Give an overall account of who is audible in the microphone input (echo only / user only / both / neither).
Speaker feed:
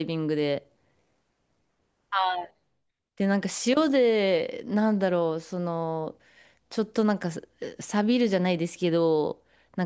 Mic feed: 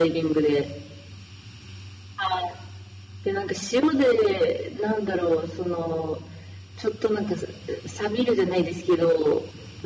echo only